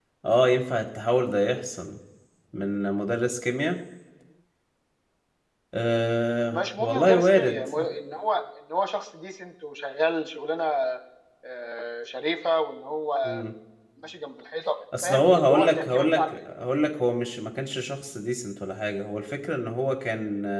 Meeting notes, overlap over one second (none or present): present